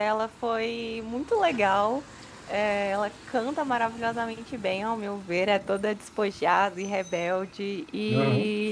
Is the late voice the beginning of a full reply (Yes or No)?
No